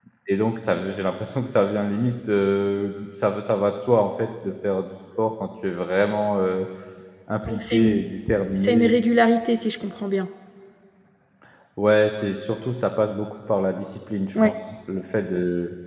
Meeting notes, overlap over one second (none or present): none